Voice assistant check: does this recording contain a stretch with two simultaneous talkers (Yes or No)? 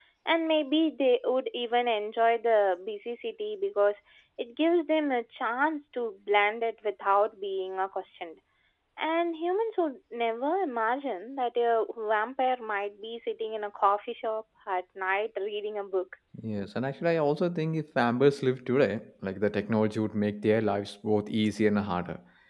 No